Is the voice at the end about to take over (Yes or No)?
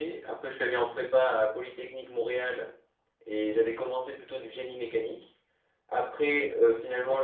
No